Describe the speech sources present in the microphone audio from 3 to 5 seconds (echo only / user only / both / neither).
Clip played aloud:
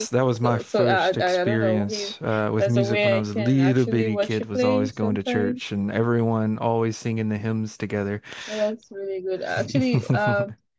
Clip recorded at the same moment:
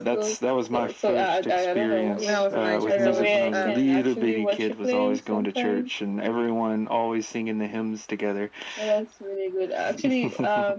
both